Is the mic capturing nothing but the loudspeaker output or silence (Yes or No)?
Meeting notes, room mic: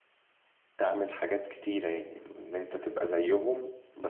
No